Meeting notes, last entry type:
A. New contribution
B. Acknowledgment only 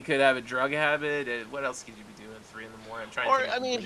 A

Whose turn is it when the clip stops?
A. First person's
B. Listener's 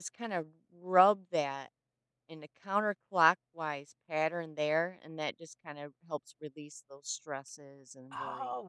B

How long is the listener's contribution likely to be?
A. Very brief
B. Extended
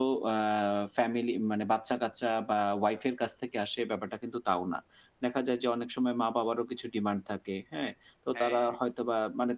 A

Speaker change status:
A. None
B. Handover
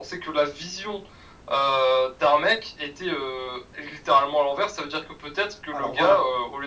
A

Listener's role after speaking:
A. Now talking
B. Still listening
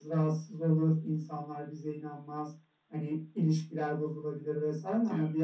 B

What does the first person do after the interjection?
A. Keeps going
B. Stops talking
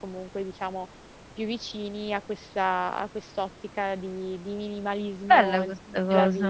B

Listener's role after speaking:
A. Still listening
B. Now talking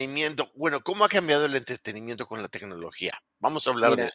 B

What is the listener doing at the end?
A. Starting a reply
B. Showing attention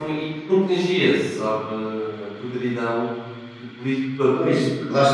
A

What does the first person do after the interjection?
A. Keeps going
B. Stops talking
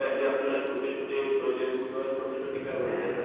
A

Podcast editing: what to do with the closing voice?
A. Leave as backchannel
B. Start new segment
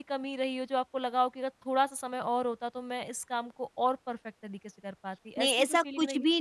B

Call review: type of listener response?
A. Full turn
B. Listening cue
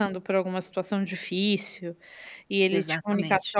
B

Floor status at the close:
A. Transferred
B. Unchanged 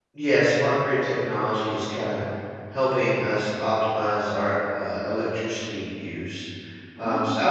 B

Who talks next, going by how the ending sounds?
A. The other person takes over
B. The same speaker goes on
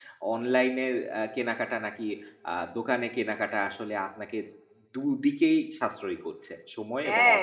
A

